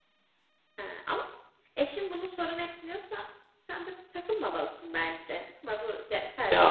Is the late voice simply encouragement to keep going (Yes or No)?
No